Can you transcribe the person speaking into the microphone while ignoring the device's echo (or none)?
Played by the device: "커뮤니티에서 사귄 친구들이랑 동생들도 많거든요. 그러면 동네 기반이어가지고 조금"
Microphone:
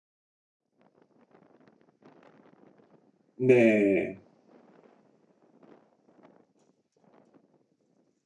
네.